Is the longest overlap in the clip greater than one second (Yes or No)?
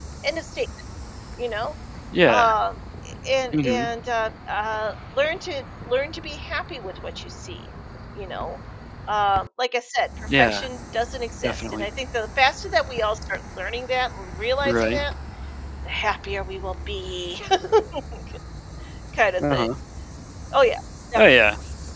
No